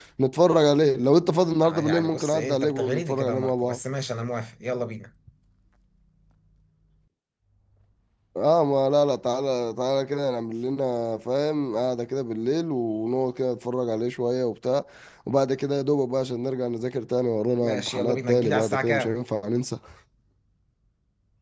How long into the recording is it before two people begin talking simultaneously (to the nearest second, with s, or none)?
2 s